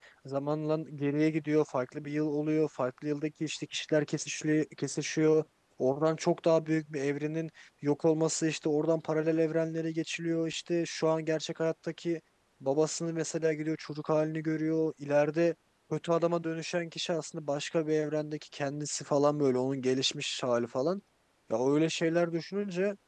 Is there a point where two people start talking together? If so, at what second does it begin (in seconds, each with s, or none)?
none